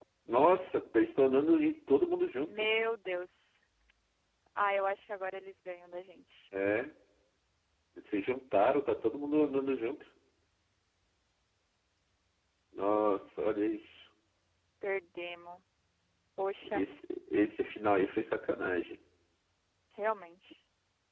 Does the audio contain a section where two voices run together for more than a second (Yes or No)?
No